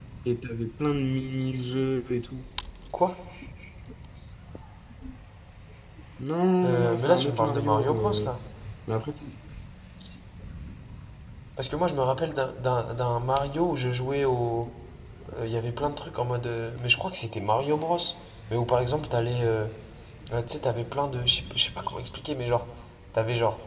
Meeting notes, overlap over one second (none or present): present